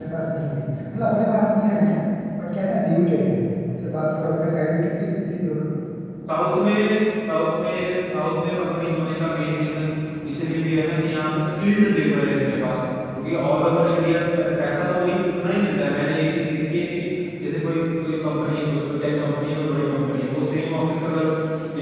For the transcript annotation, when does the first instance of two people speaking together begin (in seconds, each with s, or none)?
none